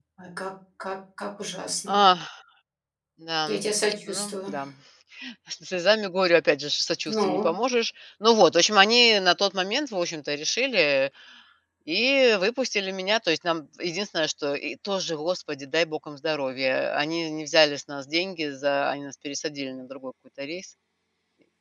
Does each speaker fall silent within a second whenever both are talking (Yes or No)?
Yes